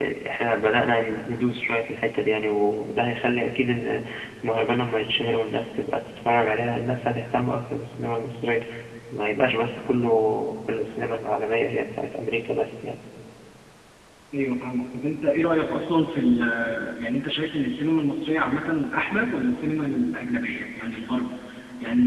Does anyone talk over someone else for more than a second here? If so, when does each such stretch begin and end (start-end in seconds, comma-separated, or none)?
none